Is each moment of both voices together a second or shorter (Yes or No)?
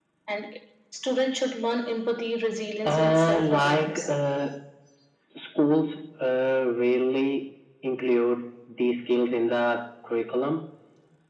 No